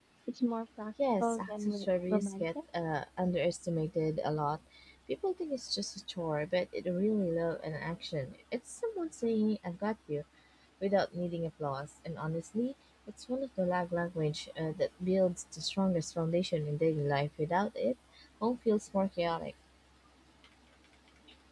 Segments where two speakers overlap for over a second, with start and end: 1.2-2.5

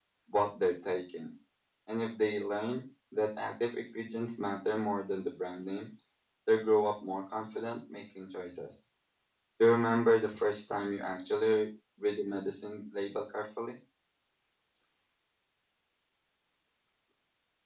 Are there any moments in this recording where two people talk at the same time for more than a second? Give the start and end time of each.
none

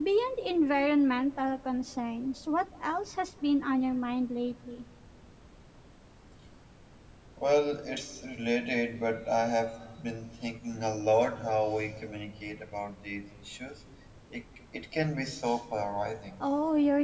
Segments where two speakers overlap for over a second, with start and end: none

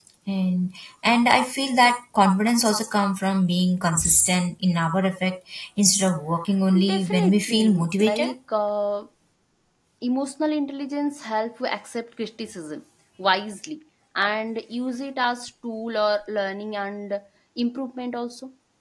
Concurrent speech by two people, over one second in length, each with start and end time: 6.9-8.3

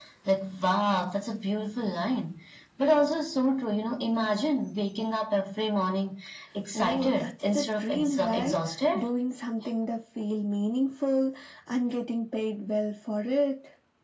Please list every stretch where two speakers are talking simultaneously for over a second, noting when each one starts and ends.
6.7-8.6

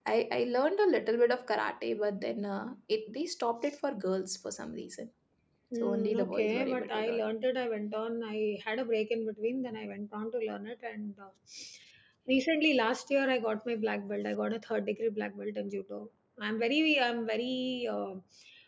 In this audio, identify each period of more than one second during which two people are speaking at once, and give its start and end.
5.8-7.2

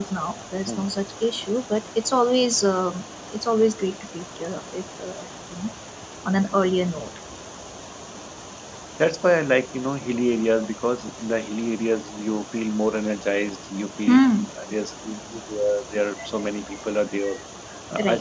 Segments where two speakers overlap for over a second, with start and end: none

